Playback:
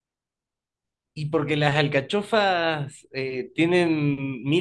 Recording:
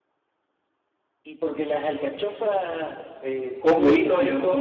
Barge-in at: 3.6 s

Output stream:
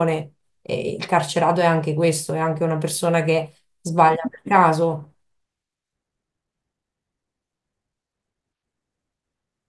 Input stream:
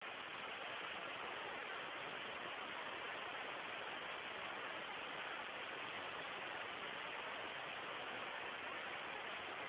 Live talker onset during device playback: none

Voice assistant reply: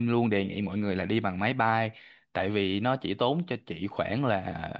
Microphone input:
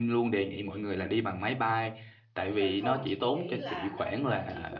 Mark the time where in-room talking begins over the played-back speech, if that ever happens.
2.5 s

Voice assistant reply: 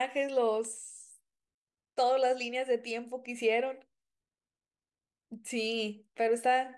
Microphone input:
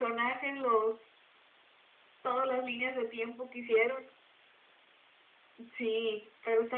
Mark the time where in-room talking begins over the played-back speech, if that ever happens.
none

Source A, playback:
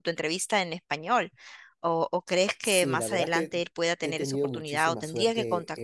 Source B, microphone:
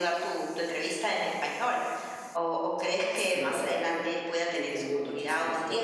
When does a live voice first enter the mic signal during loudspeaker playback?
none

